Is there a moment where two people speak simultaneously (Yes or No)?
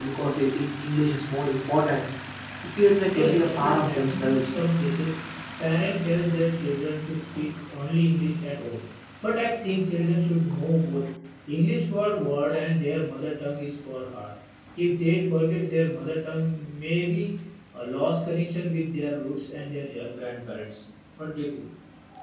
Yes